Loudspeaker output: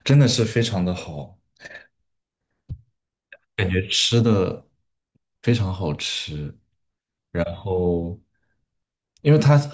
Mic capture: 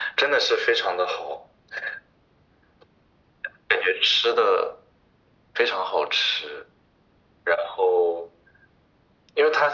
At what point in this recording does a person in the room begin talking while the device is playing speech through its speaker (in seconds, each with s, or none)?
none